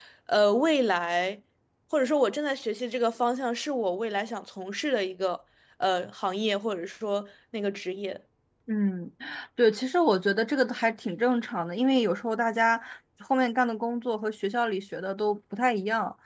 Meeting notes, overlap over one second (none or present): none